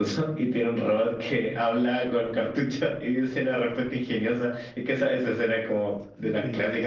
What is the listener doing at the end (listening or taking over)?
taking over